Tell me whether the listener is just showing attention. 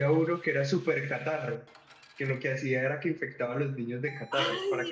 No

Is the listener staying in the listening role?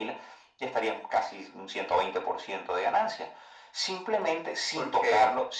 Yes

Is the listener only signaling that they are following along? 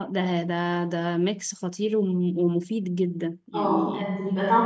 No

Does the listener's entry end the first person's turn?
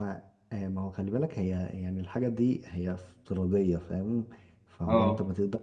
No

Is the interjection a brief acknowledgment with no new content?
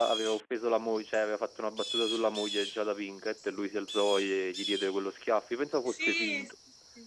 No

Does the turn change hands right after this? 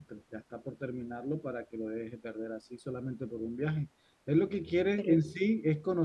No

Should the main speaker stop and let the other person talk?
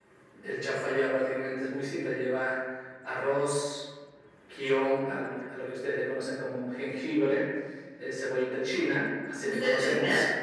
Yes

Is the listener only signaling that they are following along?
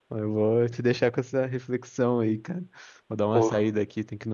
Yes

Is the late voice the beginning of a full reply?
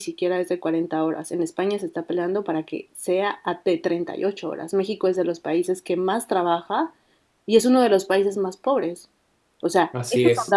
No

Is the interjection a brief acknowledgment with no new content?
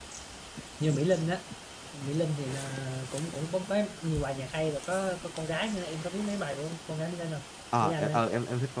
No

